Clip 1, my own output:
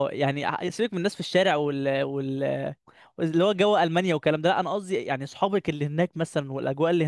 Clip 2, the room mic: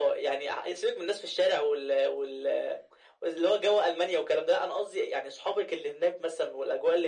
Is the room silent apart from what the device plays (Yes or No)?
Yes